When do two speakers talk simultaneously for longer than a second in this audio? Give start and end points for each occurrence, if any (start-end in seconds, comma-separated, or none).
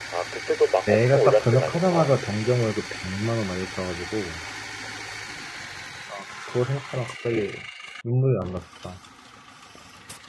0.9-2.1